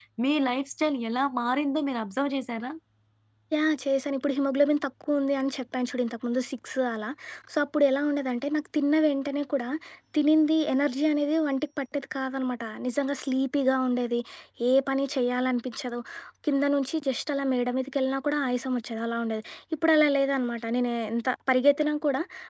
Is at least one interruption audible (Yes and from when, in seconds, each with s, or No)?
No